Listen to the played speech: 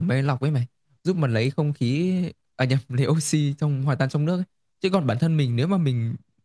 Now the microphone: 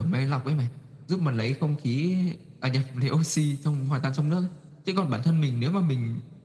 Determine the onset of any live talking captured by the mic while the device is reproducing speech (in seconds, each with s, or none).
none